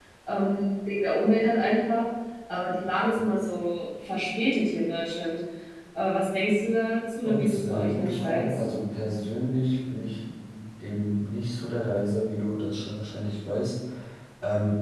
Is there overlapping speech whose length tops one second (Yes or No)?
Yes